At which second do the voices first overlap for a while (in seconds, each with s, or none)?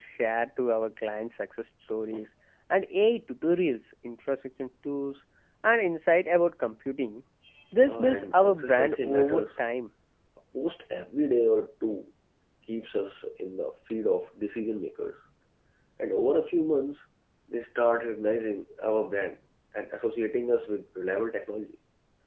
7.8 s